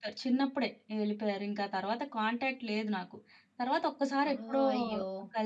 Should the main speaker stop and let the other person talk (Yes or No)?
No